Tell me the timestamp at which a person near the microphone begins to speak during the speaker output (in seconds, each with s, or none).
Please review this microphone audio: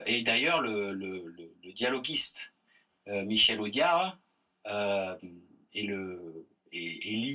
none